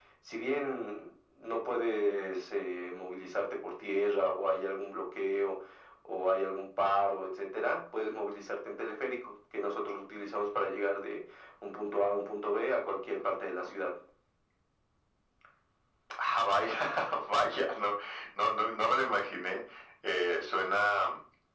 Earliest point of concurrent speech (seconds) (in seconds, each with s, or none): none